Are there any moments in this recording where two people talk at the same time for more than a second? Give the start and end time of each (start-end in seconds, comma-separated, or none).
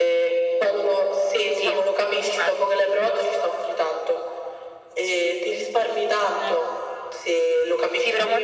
none